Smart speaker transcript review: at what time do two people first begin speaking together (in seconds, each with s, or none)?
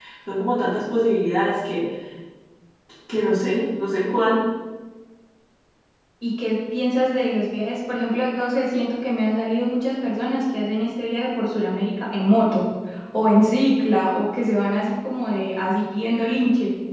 none